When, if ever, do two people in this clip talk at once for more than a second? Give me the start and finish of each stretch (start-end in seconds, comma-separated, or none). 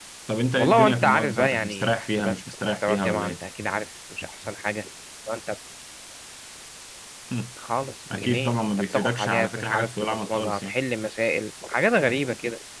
0.6-3.4, 8.1-10.7